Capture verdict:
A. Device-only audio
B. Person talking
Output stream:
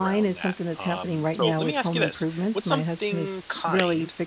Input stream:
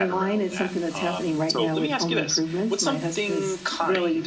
A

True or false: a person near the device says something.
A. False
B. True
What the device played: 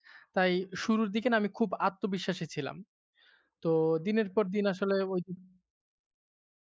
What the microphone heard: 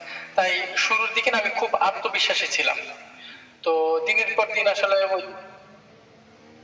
A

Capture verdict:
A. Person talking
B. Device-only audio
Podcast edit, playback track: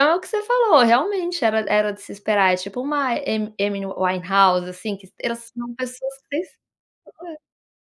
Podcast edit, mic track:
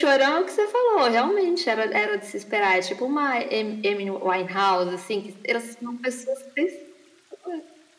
B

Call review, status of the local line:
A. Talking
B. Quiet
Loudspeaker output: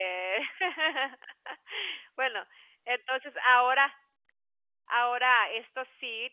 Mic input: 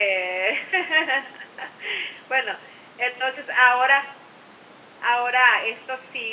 B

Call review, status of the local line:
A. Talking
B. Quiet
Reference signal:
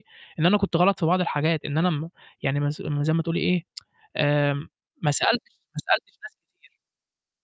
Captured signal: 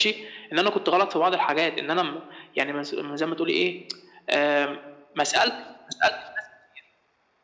B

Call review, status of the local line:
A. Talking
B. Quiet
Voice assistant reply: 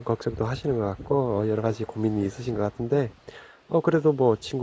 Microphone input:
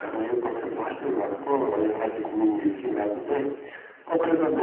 B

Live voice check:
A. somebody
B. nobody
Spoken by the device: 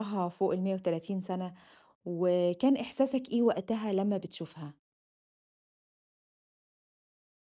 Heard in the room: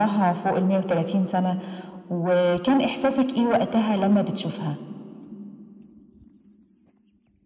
B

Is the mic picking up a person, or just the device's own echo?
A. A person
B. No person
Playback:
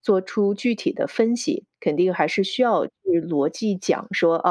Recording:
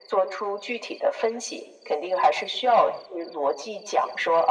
B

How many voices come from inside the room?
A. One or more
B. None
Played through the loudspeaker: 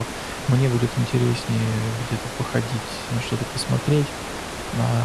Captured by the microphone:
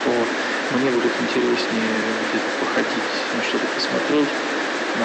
B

